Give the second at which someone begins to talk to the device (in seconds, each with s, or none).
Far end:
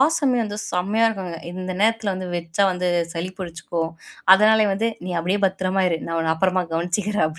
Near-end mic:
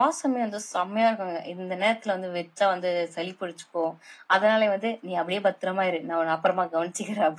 none